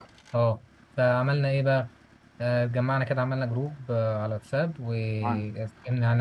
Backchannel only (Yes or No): Yes